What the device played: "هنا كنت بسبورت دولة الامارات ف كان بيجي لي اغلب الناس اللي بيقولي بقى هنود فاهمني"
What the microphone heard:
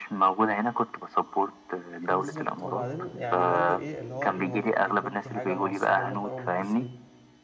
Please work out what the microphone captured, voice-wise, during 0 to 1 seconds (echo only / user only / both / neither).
echo only